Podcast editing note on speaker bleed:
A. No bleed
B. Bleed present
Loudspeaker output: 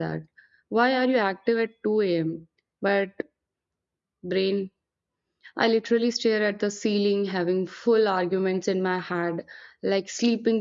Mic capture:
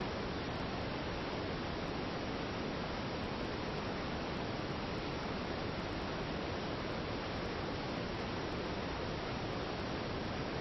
A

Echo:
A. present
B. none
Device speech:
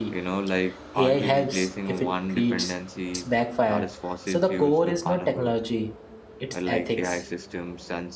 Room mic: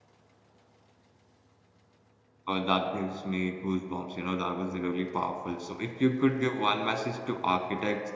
B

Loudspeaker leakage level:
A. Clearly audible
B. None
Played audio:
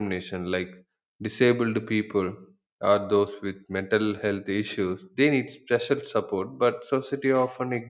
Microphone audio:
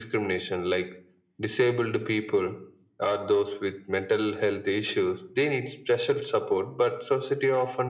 A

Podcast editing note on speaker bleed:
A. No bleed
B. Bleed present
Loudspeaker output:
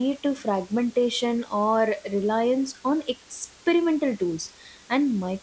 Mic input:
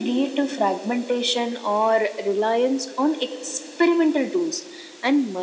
B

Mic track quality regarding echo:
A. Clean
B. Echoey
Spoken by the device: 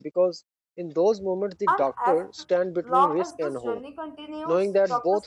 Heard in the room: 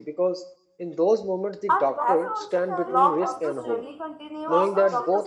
B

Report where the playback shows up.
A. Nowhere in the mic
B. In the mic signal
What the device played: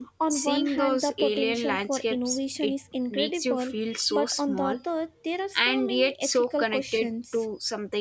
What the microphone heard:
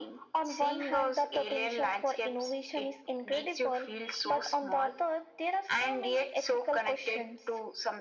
B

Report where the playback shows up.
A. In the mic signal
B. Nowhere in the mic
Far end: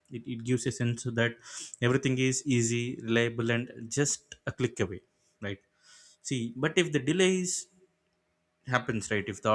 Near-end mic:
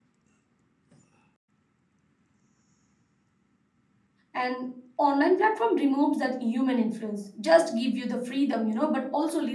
B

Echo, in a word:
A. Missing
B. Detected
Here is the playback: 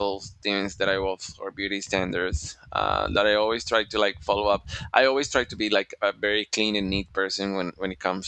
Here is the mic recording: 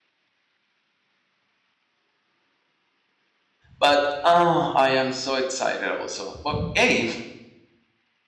A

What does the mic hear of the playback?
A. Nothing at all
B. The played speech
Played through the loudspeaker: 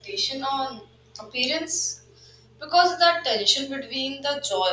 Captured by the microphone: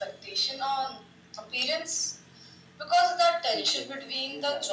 B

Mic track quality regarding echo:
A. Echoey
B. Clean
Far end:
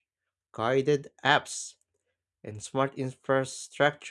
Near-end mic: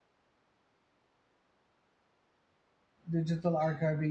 B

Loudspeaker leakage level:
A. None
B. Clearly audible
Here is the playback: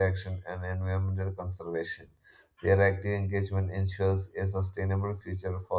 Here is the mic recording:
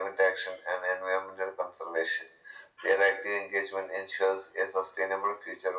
B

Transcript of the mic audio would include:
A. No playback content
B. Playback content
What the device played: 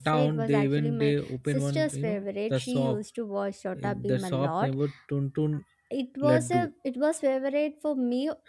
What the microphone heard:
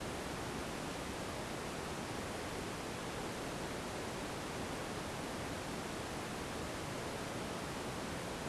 A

